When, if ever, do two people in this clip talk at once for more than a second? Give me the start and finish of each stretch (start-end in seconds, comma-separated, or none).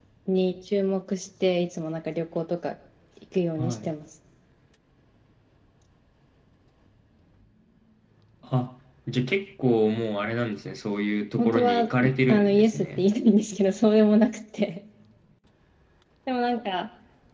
11.4-13.1